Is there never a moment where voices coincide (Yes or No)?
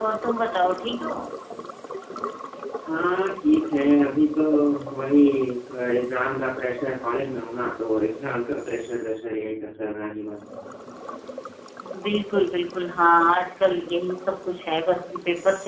Yes